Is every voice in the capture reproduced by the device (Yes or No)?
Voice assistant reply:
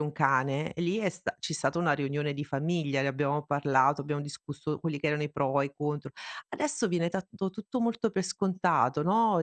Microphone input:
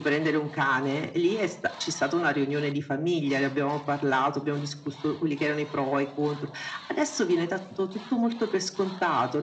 Yes